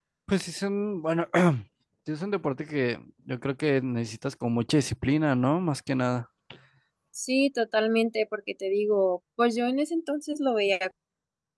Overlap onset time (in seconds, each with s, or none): none